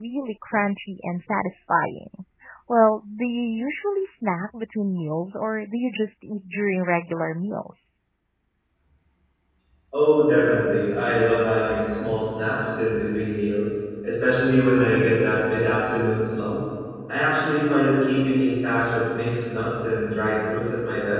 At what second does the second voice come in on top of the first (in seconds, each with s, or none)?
none